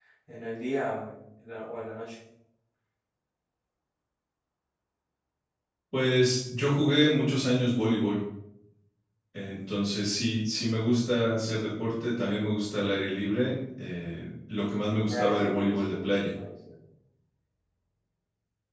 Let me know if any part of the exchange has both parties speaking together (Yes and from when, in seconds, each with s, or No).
Yes, from 15.0 s